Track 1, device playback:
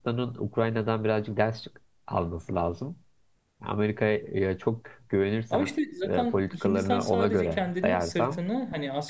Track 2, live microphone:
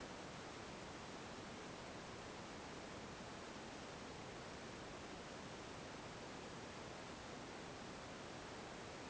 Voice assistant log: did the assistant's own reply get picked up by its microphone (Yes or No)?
No